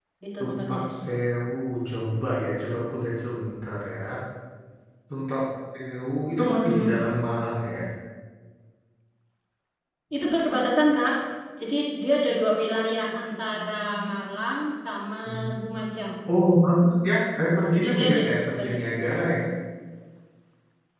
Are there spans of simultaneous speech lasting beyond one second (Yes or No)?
Yes